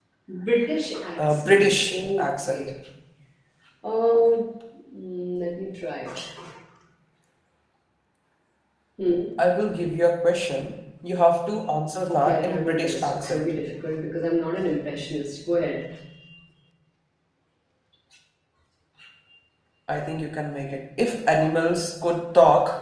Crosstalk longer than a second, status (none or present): present